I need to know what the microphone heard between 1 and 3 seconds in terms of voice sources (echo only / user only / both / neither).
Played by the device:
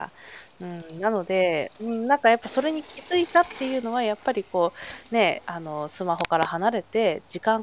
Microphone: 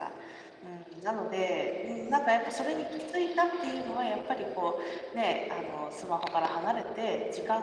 echo only